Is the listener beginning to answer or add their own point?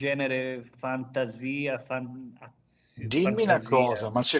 Yes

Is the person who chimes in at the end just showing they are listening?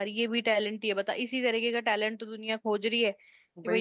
Yes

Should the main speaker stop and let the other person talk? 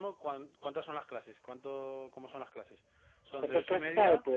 Yes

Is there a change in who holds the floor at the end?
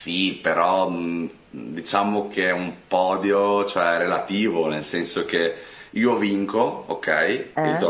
No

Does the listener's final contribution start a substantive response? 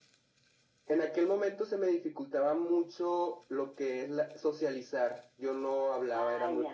Yes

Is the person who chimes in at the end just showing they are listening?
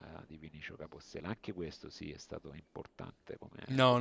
No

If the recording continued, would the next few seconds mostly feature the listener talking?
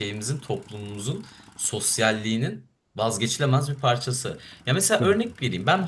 No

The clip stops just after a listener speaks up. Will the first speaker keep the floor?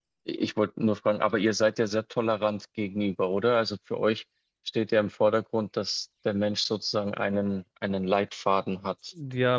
No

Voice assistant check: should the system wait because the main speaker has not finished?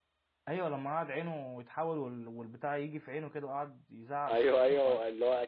No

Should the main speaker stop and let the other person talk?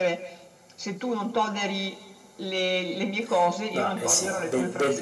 Yes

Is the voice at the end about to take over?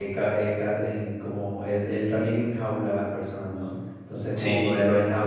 No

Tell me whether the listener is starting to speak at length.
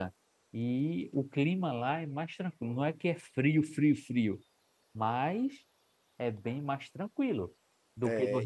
Yes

